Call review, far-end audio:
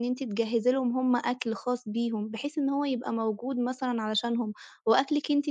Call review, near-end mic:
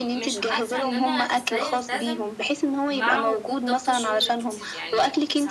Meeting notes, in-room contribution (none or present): present